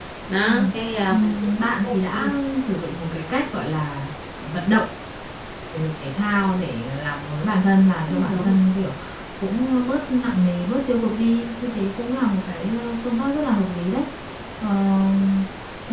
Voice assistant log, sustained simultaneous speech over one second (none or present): none